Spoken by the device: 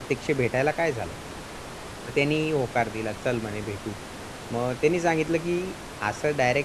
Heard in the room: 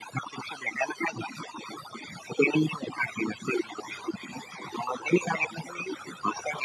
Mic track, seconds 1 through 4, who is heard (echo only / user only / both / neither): echo only